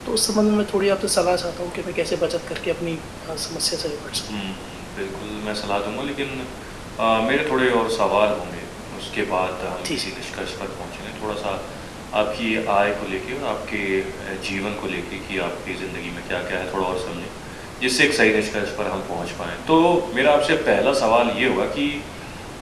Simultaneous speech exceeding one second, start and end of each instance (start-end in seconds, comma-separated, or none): none